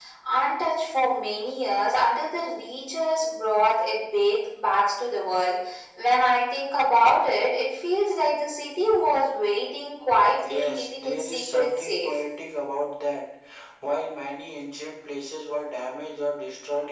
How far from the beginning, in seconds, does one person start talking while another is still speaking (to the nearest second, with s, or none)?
10 s